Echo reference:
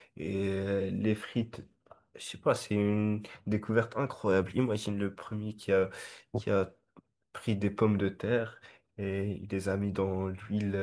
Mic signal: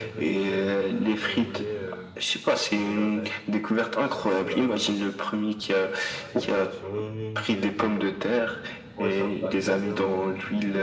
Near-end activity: present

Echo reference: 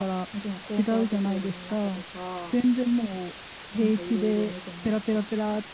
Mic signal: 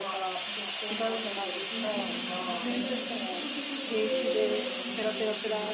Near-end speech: present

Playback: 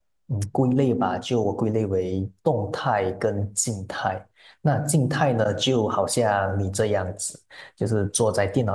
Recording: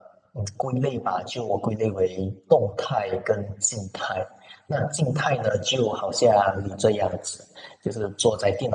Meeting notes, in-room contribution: none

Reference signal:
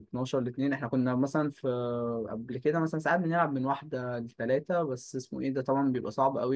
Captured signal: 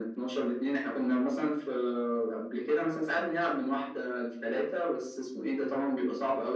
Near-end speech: none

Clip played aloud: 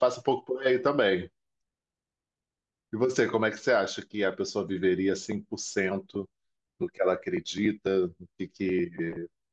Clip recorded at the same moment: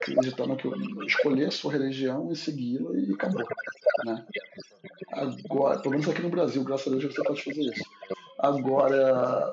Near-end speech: present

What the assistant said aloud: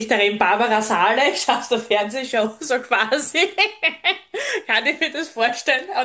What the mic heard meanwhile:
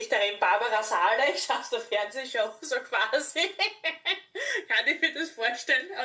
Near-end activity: none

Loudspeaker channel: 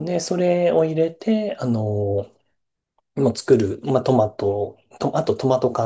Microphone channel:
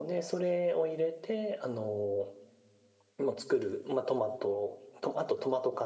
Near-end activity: none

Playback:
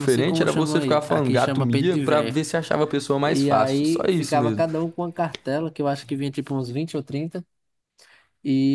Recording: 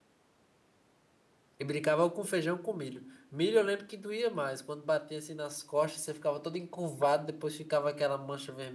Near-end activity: present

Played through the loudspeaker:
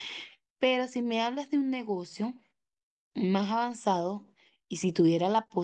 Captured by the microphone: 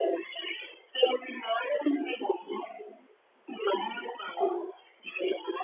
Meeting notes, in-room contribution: none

